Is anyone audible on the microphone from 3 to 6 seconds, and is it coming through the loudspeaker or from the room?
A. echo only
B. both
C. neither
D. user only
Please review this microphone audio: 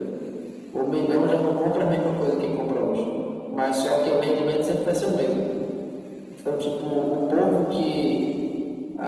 A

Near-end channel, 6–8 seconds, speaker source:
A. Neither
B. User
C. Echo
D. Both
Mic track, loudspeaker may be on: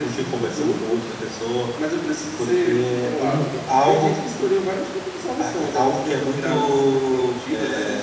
C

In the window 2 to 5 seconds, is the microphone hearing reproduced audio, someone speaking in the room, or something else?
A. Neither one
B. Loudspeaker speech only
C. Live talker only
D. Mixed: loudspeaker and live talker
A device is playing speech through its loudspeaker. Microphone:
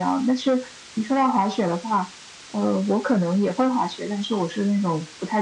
B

